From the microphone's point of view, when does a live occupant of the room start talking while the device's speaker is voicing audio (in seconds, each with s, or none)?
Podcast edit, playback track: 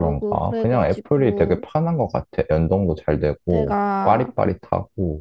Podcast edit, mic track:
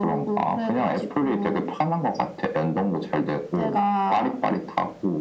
none